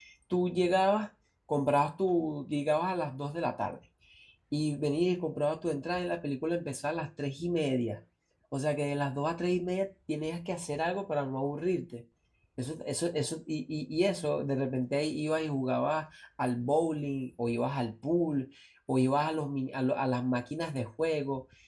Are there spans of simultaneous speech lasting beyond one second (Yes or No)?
No